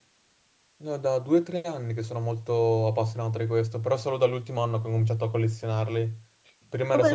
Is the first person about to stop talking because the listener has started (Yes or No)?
No